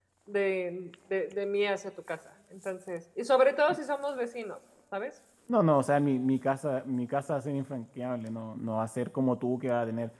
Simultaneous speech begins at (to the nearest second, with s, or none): none